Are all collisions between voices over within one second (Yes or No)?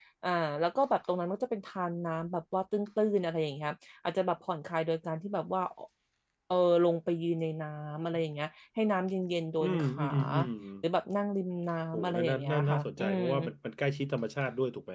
No